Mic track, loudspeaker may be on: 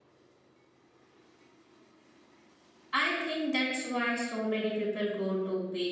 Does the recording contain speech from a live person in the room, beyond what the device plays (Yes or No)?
Yes